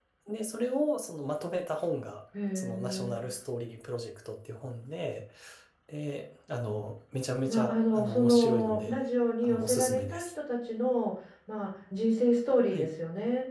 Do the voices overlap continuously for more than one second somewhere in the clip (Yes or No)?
Yes